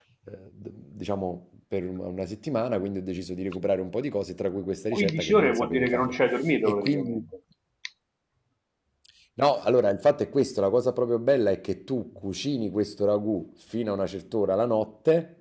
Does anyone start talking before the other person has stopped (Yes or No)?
Yes